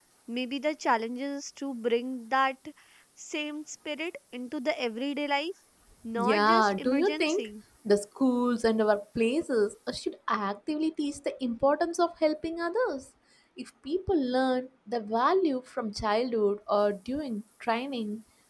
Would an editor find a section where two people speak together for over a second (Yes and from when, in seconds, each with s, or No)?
Yes, from 6.2 s